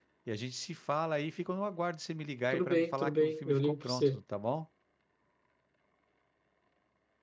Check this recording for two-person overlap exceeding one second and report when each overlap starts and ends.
2.5-4.2

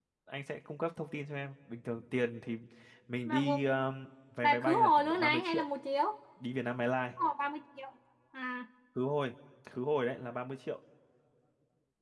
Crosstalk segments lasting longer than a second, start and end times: 4.4-5.7

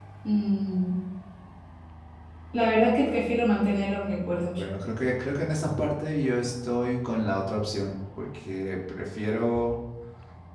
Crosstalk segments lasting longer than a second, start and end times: none

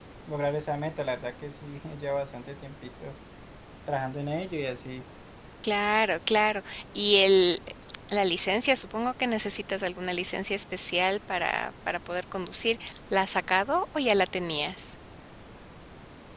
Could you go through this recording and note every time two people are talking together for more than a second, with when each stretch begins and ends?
none

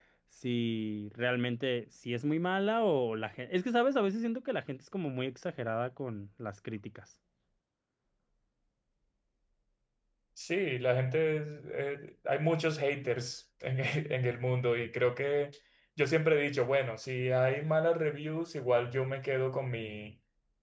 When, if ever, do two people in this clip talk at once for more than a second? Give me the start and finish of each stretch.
none

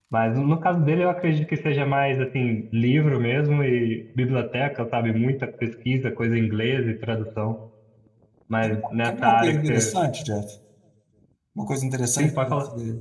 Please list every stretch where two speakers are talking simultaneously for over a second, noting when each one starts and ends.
8.6-9.9

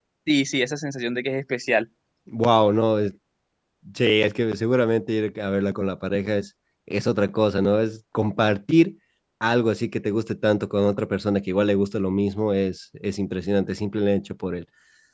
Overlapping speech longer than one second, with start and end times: none

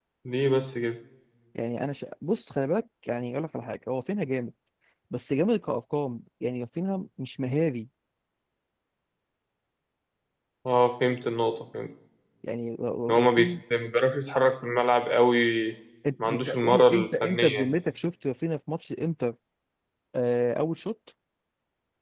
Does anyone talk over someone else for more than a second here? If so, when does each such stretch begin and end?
16.2-17.8

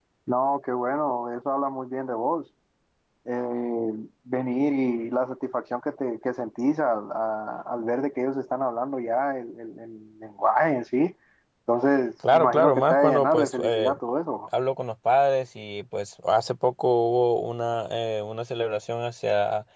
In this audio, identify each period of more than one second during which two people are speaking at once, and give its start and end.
12.3-13.9

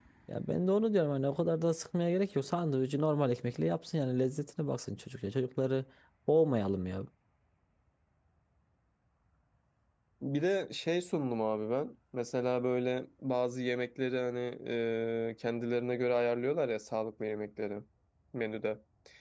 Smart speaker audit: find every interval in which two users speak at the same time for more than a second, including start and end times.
none

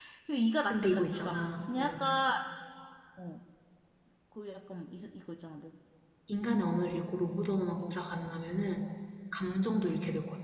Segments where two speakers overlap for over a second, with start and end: 0.7-2.0

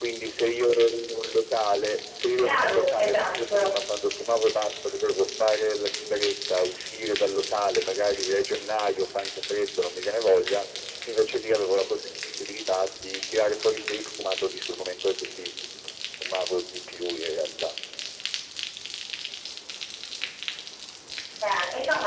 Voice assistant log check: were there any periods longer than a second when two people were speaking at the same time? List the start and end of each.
2.4-3.8

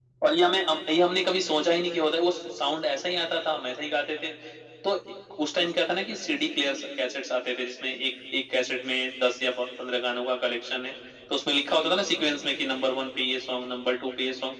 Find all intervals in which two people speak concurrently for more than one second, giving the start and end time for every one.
none

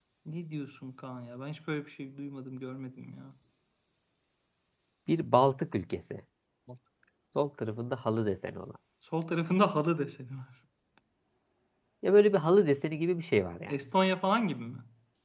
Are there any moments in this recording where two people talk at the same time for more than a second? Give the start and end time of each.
none

